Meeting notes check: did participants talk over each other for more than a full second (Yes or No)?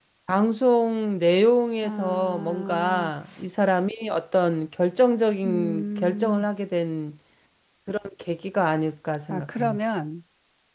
Yes